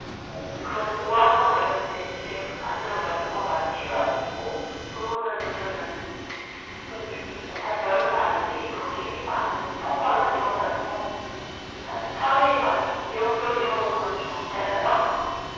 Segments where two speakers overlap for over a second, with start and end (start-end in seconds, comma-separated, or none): 13.4-14.9